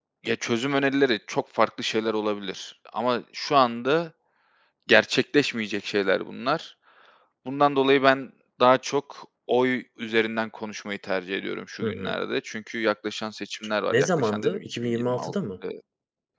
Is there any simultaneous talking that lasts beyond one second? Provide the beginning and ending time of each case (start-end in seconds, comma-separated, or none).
13.9-15.3